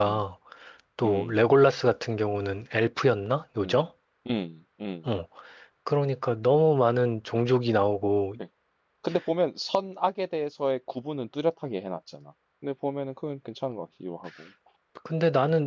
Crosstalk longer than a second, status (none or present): none